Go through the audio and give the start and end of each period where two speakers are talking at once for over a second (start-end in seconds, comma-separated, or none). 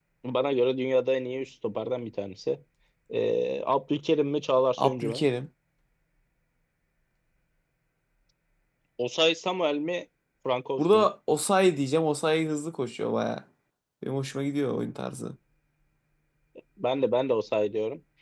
none